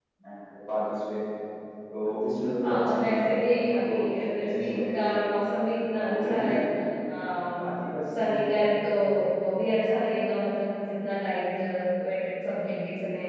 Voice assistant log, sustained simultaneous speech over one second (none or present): present